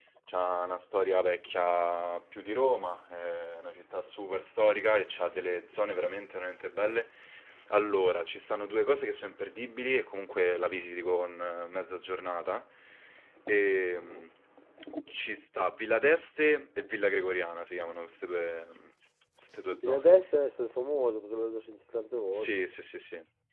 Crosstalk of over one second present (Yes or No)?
No